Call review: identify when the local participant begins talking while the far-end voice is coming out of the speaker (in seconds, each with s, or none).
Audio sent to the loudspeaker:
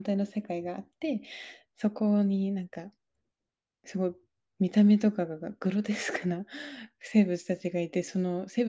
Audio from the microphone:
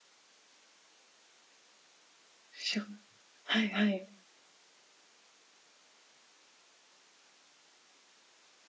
2.5 s